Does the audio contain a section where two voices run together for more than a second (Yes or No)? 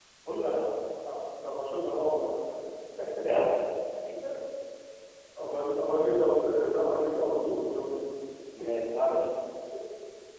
No